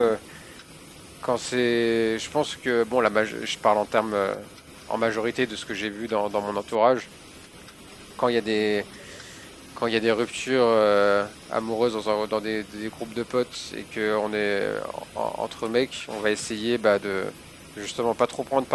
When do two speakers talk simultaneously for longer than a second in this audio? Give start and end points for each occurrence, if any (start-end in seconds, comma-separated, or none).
none